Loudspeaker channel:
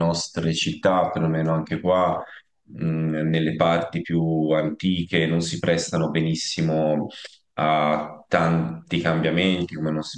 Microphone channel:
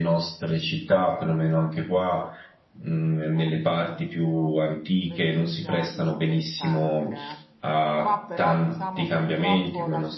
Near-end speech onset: 3.3 s

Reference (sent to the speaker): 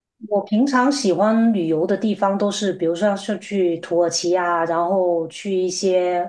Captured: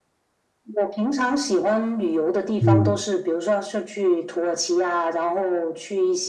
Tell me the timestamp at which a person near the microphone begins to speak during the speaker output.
2.6 s

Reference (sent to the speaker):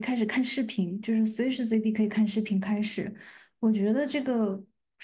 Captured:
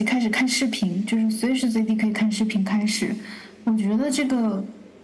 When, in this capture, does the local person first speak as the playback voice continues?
none

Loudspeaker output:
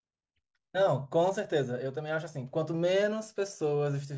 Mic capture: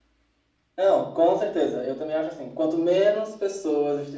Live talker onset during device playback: none

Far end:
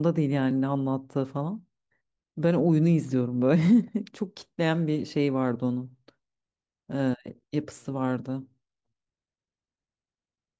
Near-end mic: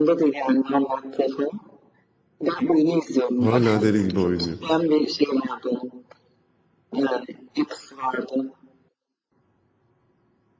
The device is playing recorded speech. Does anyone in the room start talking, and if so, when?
3.4 s

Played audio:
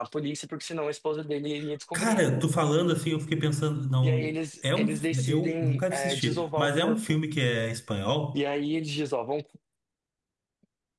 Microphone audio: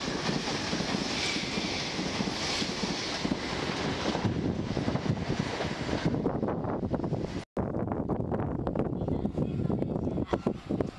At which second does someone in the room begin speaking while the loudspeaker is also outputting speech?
none

